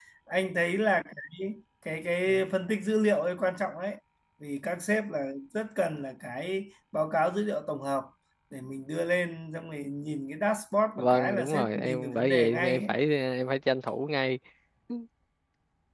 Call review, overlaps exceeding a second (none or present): present